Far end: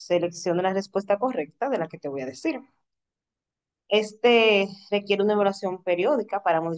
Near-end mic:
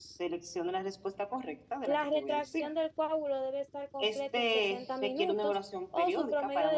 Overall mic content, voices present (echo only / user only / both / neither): both